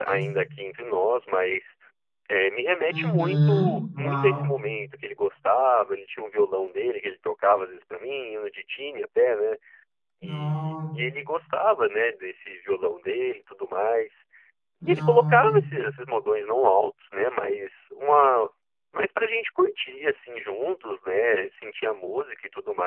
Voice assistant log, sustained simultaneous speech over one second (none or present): present